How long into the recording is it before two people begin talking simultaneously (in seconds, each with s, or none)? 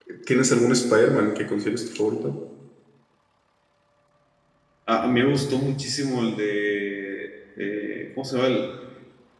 none